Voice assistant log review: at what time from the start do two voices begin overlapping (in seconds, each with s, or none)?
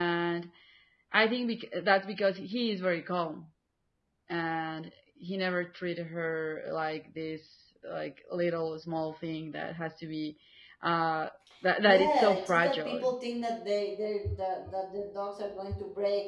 11.8 s